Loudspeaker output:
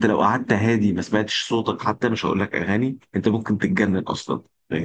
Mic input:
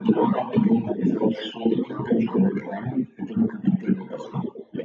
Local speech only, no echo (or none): none